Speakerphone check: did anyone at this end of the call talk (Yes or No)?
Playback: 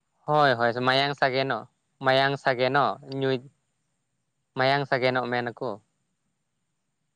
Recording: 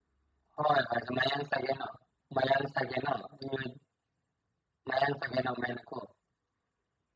No